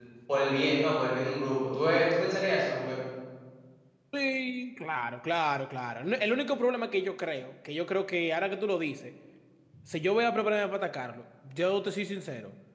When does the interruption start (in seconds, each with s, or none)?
none